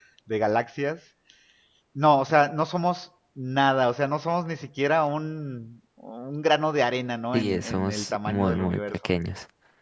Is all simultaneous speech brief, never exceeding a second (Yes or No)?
No